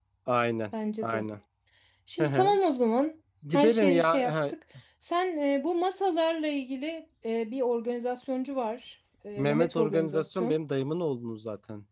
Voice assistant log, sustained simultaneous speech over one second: present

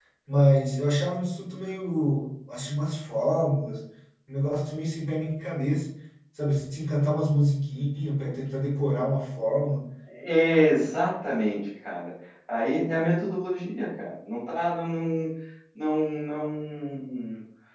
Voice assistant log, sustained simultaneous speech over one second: none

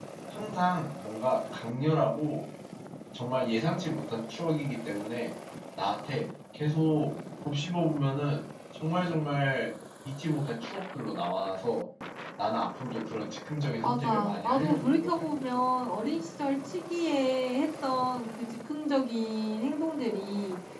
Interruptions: present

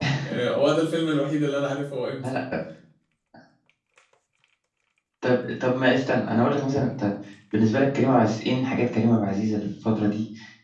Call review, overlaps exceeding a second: none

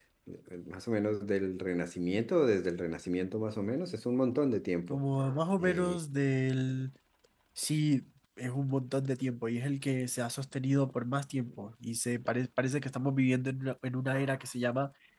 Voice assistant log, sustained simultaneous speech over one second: none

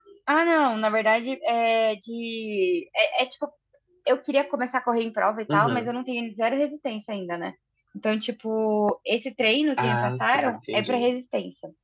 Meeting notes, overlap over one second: present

